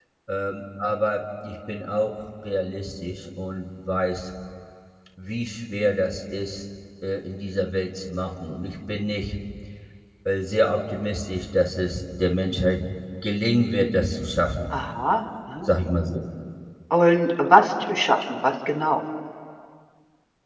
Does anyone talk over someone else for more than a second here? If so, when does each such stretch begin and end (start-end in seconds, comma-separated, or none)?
none